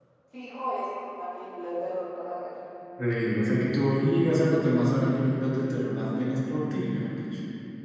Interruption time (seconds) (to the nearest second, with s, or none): none